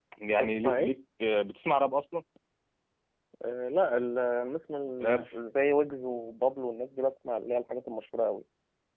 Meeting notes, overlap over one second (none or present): none